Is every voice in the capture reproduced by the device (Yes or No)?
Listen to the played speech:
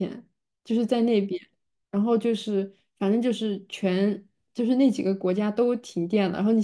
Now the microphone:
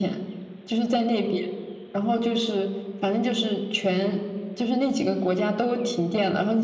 Yes